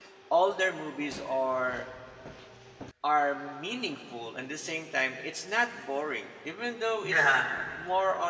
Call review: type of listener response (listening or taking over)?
listening